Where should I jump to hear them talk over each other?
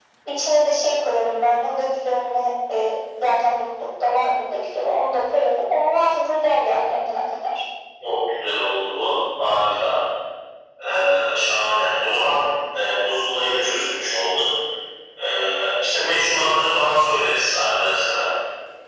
none

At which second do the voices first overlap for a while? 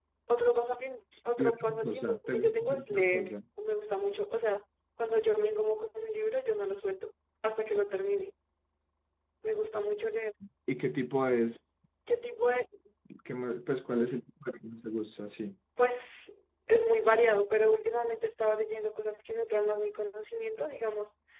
1.4 s

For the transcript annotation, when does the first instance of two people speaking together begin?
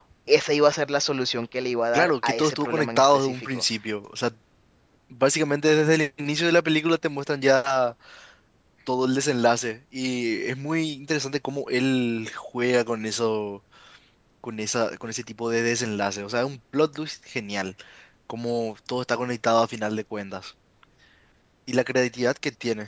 1.9 s

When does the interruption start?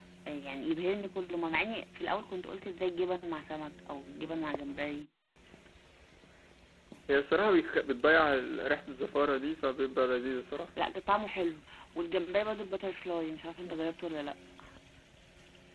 none

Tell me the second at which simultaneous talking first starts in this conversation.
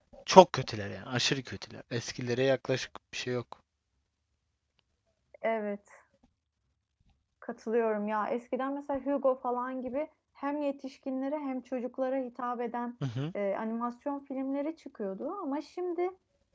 none

